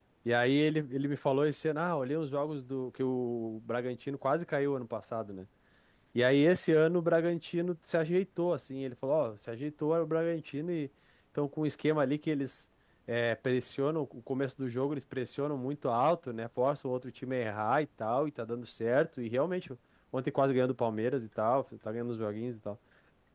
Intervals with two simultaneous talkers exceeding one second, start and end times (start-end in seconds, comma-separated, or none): none